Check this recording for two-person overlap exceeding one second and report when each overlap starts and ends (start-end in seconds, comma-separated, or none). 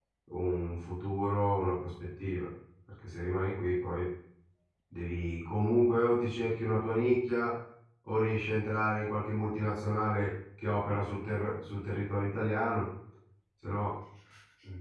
none